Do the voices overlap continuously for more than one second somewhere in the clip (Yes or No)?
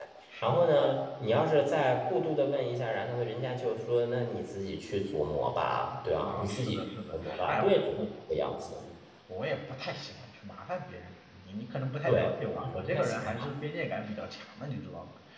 Yes